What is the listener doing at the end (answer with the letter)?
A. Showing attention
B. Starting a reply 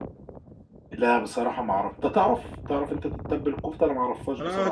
B